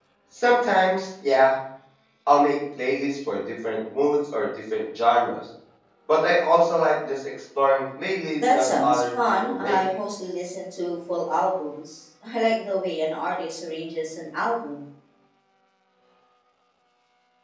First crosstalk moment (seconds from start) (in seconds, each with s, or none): 8.4 s